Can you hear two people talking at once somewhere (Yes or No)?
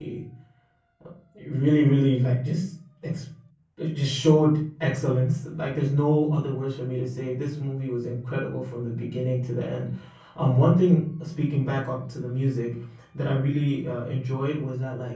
No